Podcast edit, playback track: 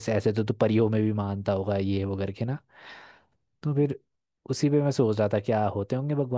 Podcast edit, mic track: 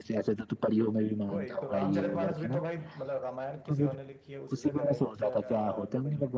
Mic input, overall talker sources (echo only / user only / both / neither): both